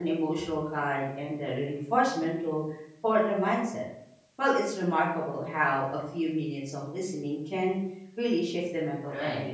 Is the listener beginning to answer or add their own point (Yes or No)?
Yes